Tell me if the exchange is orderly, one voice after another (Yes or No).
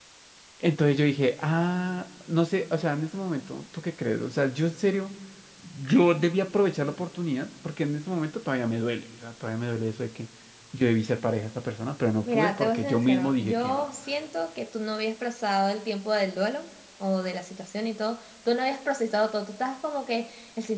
No